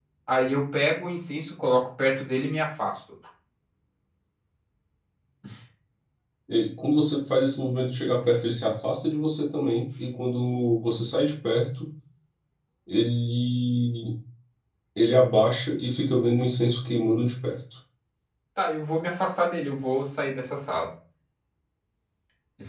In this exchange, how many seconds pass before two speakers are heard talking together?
none

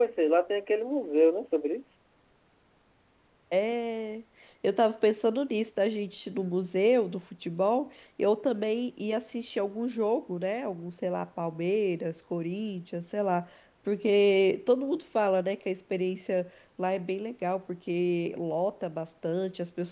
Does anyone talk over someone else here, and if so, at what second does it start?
none

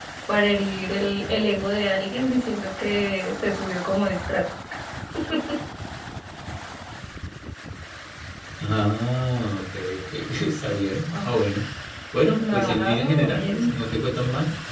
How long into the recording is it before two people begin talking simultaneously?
12.4 s

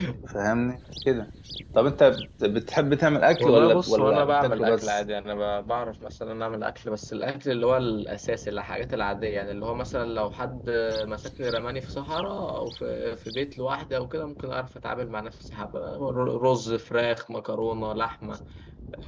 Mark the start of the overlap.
3.4 s

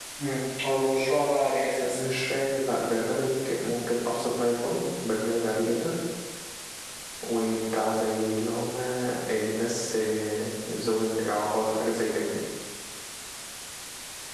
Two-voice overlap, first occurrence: none

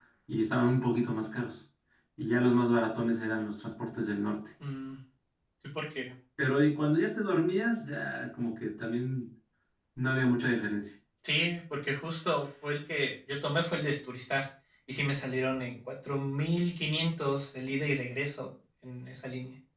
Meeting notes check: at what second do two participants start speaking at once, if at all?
none

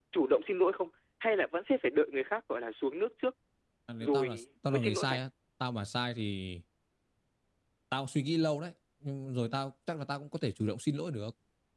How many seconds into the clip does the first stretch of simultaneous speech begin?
4.0 s

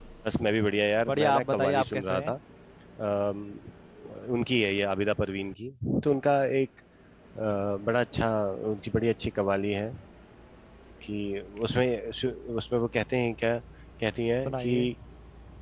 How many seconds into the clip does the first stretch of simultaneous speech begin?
1.1 s

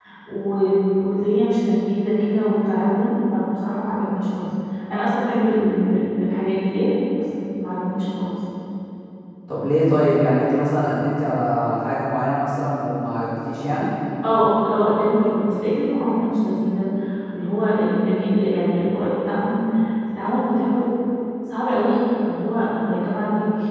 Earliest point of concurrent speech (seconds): none

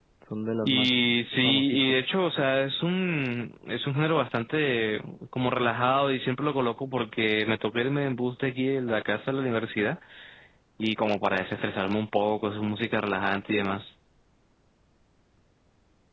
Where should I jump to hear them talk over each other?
0.6 s

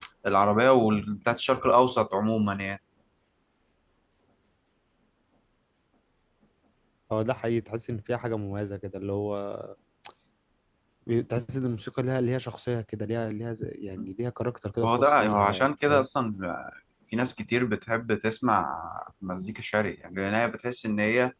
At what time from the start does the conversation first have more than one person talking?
14.8 s

